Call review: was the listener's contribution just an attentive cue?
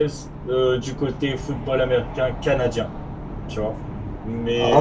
Yes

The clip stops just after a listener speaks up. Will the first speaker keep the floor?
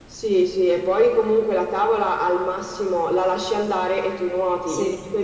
Yes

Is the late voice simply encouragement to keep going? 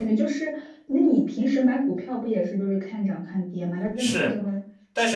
No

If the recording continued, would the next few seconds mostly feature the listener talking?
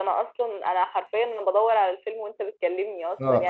Yes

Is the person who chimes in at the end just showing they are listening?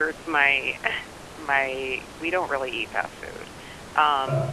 Yes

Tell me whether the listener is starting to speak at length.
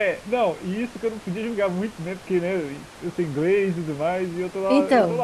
No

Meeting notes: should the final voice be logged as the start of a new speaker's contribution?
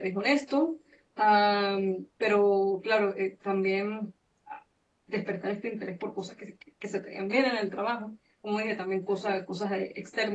No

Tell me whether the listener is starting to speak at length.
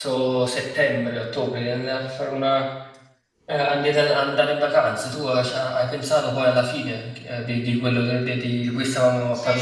Yes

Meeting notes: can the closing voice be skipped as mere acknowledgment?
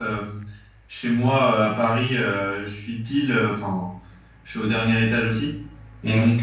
Yes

